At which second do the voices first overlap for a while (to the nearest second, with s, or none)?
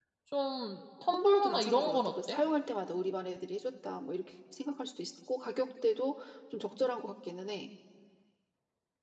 1 s